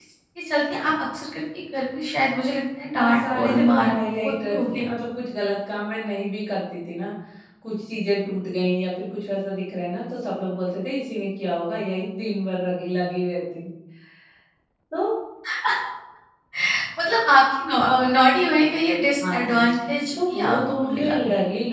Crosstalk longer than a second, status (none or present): present